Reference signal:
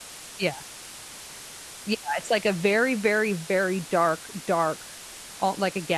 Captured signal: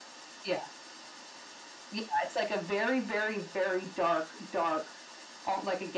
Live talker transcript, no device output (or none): none